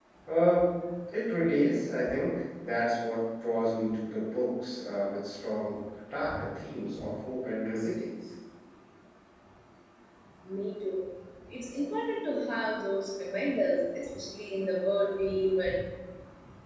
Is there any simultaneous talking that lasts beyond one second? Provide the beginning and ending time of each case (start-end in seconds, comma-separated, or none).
none